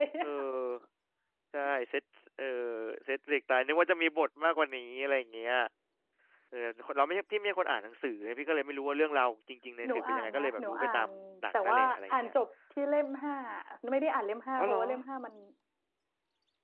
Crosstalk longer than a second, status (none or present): present